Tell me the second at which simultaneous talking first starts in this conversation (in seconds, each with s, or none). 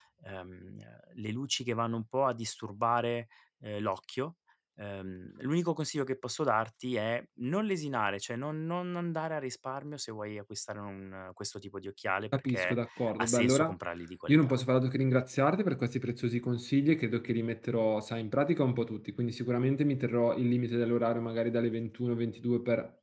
12.3 s